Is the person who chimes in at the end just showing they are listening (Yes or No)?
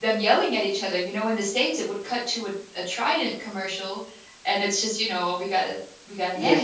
No